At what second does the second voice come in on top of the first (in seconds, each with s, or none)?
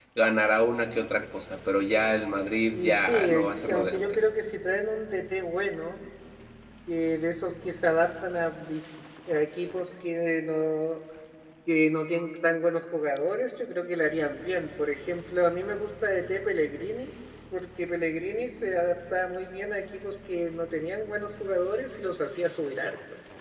2.7 s